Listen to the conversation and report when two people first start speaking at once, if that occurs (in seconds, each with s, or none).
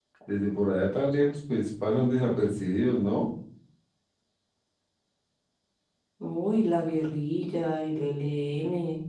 none